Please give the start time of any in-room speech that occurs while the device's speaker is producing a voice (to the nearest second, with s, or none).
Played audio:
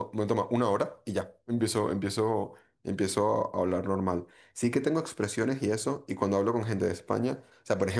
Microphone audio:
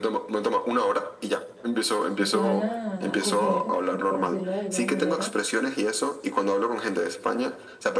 2 s